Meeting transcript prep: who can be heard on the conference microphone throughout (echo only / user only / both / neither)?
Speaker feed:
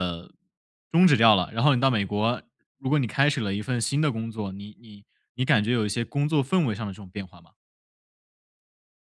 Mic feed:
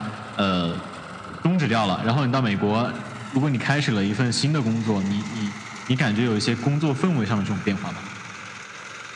echo only